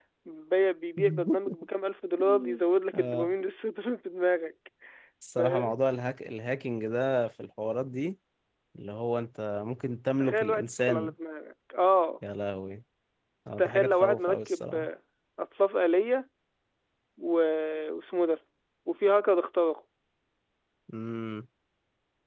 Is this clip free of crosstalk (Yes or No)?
No